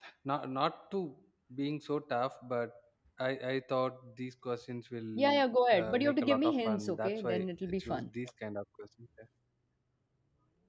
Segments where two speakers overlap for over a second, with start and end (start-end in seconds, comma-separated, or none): 5.8-7.3